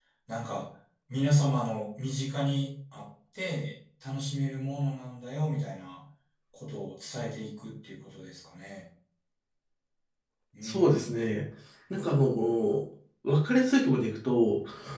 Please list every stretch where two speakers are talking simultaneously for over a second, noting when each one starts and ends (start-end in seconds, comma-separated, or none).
none